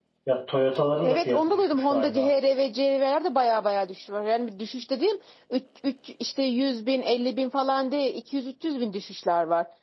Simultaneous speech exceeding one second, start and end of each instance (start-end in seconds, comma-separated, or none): 1.0-2.3